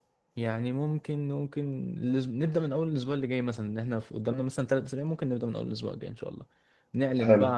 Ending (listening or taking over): listening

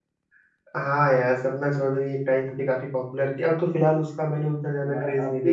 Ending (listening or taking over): taking over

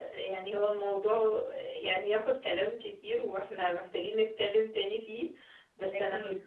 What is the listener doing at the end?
listening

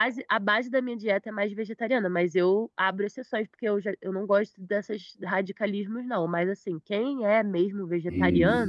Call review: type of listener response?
listening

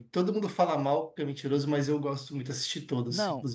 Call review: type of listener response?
taking over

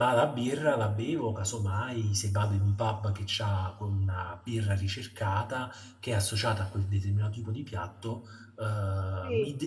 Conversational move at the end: listening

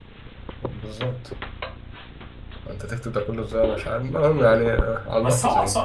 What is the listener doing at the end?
taking over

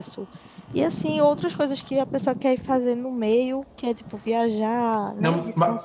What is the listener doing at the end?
taking over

